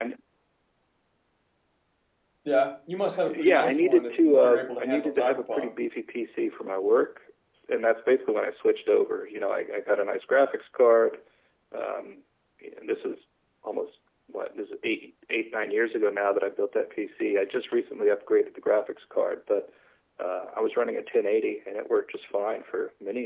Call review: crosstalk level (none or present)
present